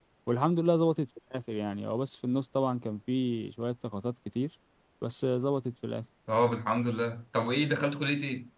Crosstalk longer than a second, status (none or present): none